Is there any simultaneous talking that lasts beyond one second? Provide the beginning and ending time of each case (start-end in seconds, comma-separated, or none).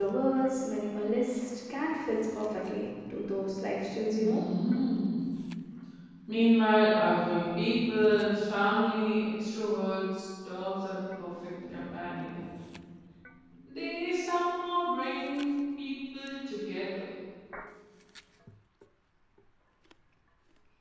none